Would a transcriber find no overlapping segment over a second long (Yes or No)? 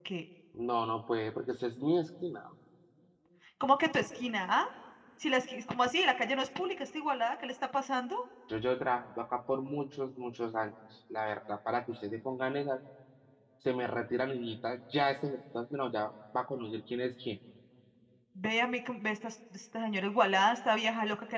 Yes